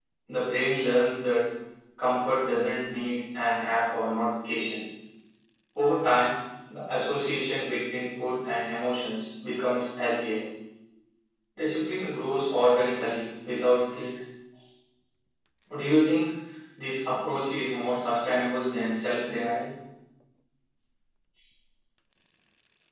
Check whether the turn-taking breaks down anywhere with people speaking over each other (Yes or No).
No